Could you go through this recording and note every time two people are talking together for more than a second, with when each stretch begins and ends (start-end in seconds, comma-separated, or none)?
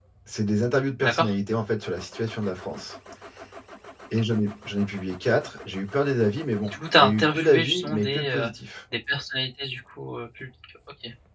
6.6-8.5